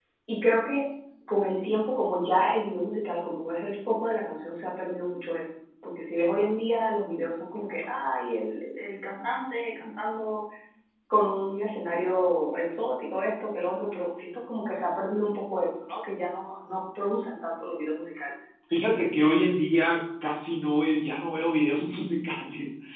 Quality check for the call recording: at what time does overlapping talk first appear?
none

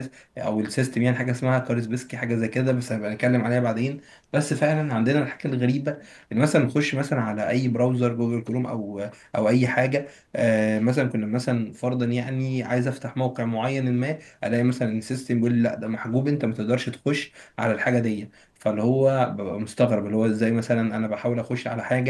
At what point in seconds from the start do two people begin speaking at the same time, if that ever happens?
none

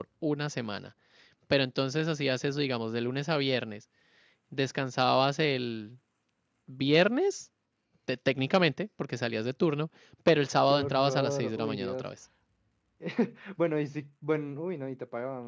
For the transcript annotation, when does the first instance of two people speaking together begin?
11 s

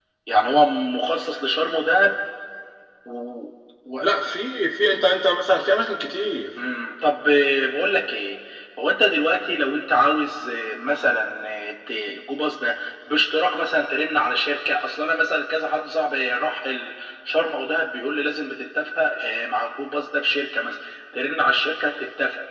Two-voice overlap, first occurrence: none

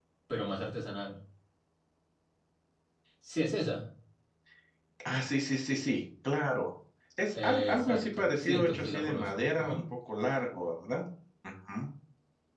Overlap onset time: 7 s

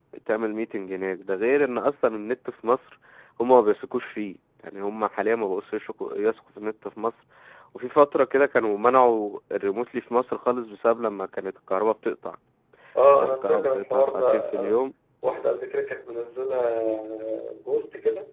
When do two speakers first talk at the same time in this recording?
13 s

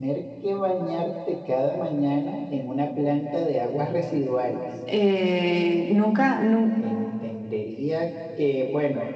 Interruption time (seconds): none

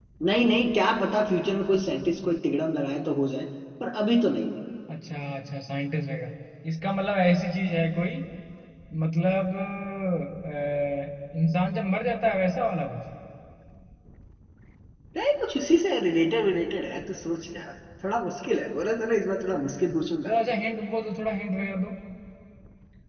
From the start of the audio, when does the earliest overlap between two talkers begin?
none

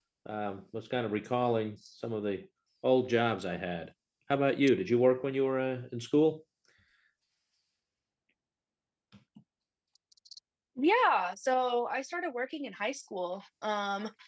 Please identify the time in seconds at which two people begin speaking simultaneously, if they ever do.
none

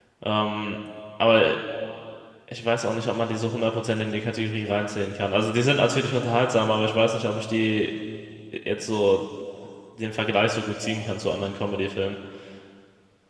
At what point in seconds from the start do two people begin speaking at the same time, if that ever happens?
none

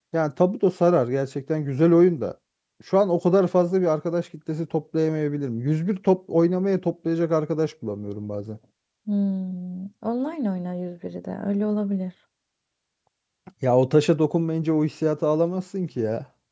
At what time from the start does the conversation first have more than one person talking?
none

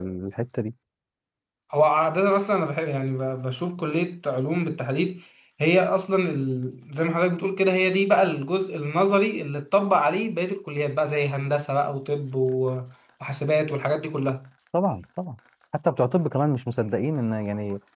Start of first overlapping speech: none

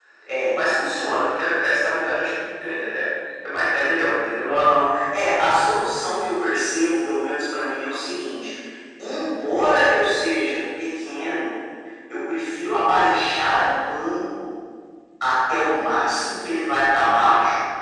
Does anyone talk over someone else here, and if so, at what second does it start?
none

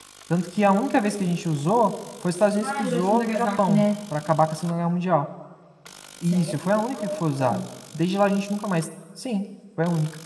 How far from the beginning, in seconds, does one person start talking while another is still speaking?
3 s

